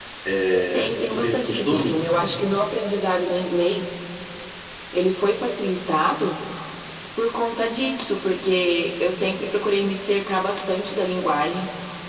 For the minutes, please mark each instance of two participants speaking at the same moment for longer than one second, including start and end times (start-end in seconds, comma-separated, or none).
0.7-2.0